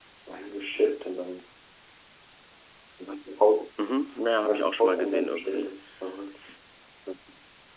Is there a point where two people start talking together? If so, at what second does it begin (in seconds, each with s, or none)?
4.4 s